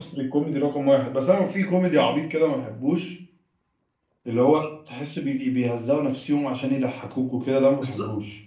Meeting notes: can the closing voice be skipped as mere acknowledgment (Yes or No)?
No